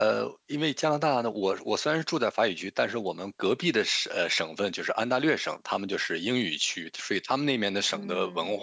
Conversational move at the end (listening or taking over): listening